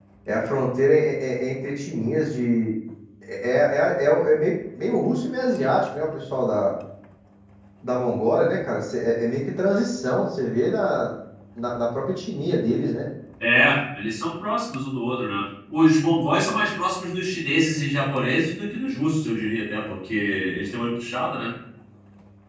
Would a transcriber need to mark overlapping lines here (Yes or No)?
No